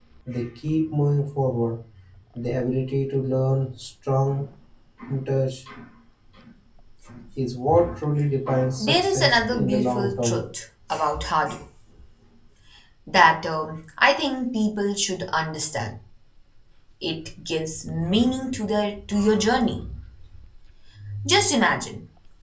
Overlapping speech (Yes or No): Yes